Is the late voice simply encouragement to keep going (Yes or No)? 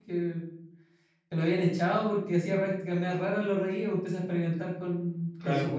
Yes